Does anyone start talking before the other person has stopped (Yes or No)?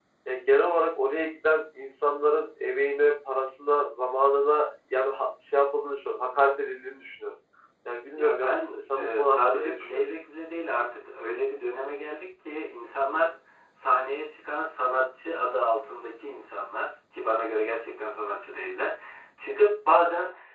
Yes